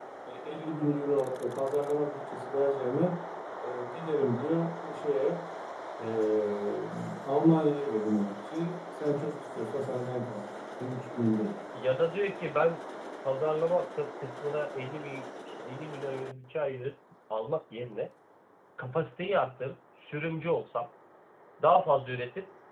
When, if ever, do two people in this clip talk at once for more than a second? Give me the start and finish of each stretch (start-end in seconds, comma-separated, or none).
none